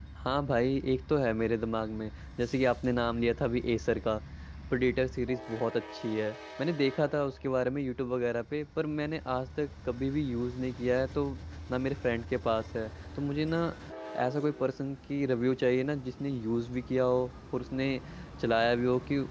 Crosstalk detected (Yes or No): No